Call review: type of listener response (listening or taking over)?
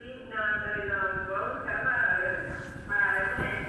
listening